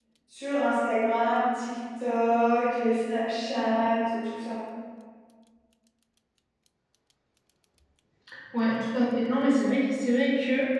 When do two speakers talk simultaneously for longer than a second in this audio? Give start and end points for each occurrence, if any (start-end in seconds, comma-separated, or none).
none